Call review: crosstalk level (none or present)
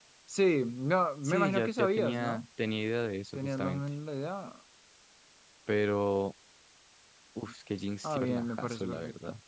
present